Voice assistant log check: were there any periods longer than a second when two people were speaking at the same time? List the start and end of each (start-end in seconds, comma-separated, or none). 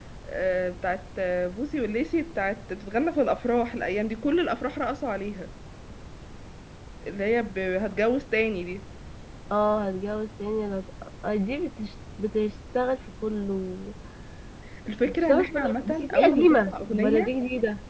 15.1-17.3